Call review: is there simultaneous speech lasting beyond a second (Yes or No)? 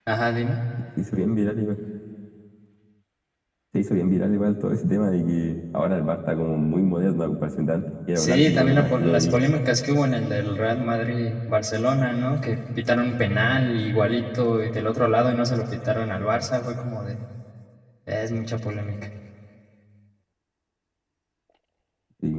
Yes